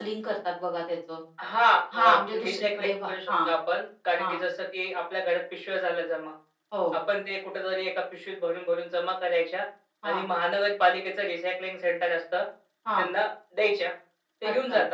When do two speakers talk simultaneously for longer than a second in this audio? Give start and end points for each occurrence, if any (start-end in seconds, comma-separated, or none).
1.9-3.3